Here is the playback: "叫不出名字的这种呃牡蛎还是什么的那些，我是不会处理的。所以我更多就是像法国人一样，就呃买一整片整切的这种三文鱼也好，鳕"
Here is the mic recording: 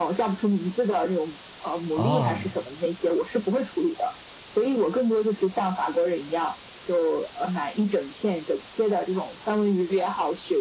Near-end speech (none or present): present